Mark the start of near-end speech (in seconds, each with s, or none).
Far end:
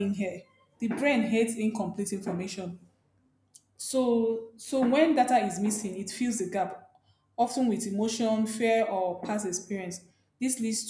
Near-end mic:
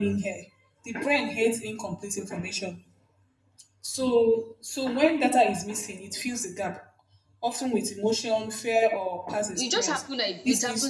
9.6 s